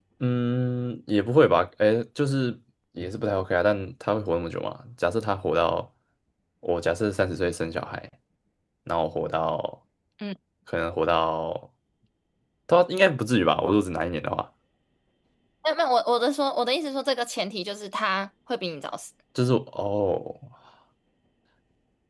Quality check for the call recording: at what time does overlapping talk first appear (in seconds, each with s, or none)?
none